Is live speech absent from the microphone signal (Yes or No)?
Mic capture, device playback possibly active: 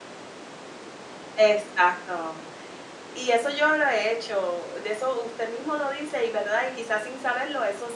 No